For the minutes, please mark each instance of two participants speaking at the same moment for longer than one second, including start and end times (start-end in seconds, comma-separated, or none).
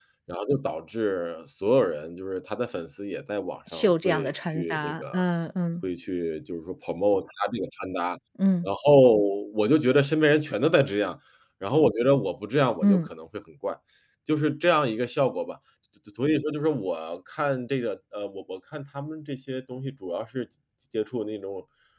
3.7-5.2